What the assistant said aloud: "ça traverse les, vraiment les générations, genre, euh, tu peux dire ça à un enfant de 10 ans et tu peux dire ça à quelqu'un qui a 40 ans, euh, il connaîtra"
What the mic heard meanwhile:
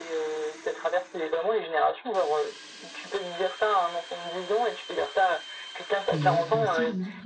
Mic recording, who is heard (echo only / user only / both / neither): both